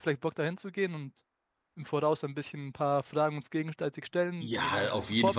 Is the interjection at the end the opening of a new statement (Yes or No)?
Yes